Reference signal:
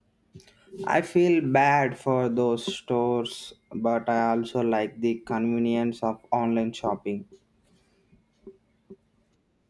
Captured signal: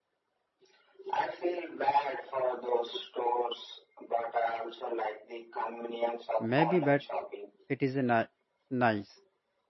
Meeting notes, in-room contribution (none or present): present